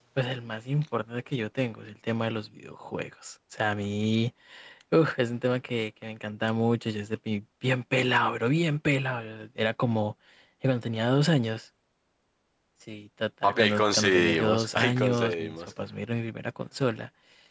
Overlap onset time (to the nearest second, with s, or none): 13 s